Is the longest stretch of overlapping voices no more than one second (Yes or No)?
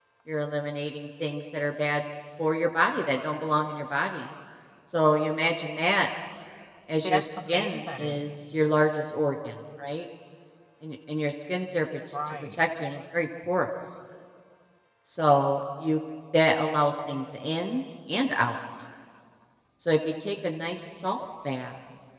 No